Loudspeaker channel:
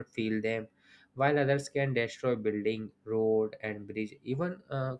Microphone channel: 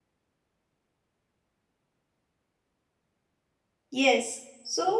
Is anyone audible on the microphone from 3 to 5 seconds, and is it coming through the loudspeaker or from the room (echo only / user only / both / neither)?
user only